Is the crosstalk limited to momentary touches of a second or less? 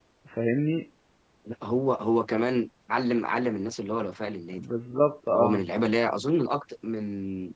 Yes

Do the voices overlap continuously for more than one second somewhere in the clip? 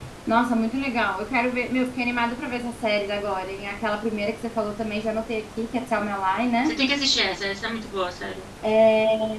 No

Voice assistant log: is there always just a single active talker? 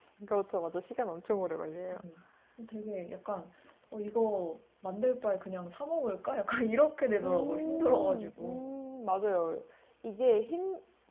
No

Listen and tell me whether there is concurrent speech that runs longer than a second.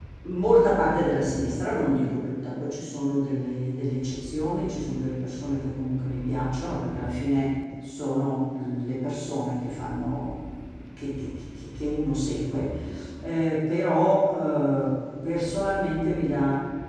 No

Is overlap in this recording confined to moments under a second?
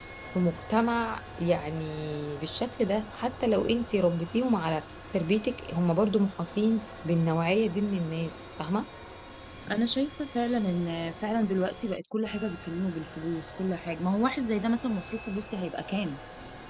Yes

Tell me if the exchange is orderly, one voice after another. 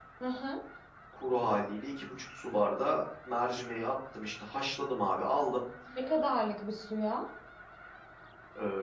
Yes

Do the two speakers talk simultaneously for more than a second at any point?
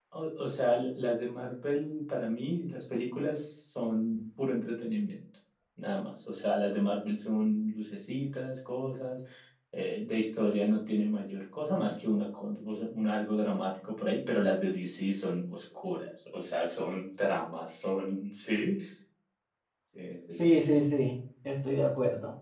No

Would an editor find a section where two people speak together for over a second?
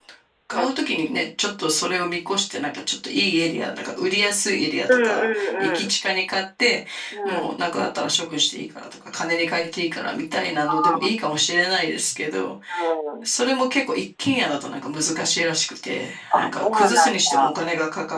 Yes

